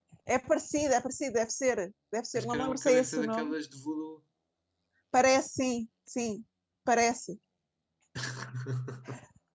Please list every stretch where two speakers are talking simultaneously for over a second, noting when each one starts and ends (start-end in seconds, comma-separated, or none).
2.3-3.5